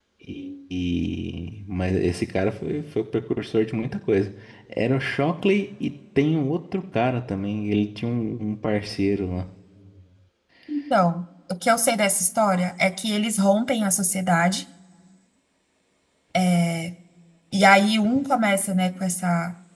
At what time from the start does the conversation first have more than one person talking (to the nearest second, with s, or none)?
none